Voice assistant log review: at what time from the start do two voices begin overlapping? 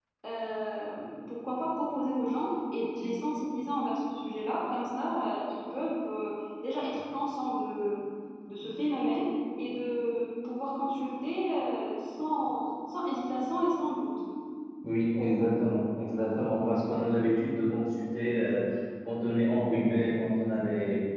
none

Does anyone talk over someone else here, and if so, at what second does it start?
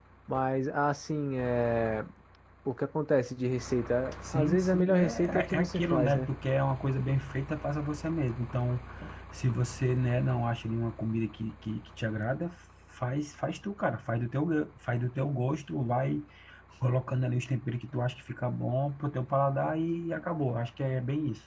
4.2 s

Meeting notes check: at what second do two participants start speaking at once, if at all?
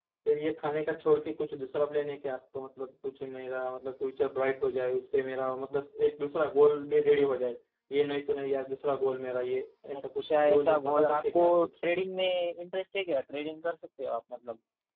9.9 s

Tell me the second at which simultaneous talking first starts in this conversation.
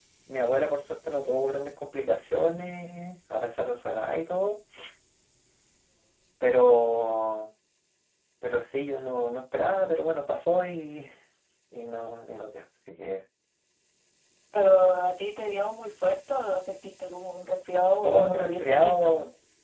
18.0 s

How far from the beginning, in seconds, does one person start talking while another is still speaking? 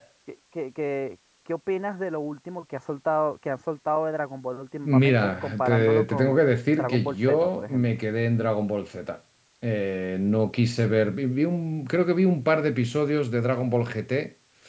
4.8 s

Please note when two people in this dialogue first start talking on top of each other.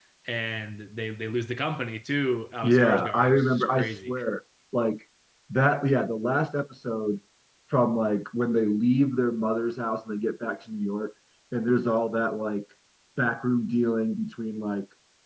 2.6 s

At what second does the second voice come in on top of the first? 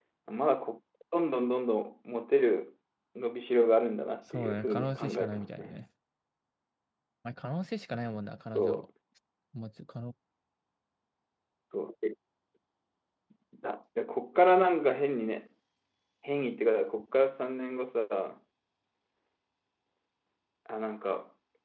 4.3 s

